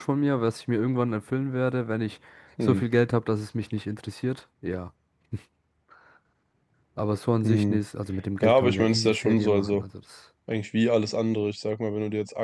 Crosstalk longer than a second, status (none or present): present